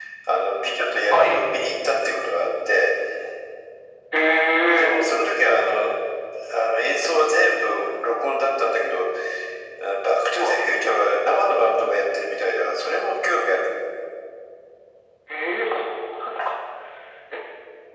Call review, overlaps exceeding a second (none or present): none